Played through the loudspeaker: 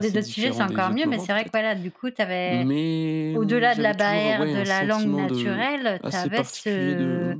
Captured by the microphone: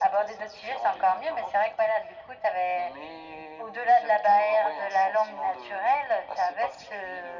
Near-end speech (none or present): none